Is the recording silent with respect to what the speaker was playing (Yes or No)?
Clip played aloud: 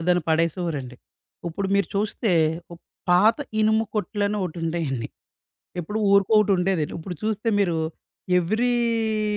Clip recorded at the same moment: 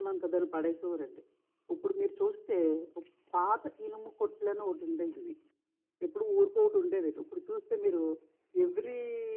No